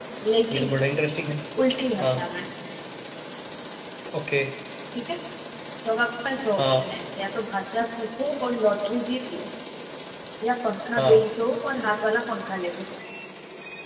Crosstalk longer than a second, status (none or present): none